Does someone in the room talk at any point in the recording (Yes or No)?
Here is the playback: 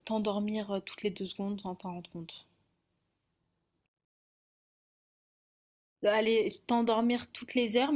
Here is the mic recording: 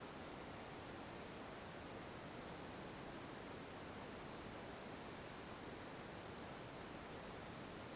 No